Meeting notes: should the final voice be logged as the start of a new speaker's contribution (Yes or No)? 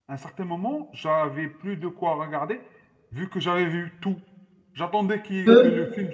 No